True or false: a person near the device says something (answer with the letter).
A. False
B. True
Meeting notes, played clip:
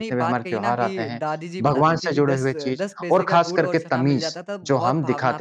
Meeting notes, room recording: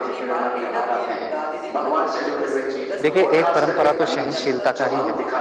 B